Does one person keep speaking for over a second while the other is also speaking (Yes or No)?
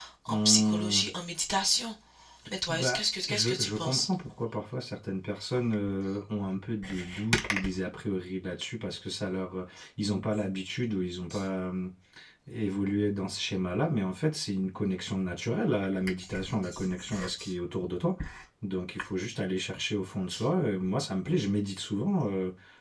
Yes